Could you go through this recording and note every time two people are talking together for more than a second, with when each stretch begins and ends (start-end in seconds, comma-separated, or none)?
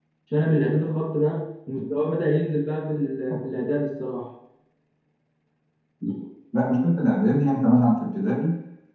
none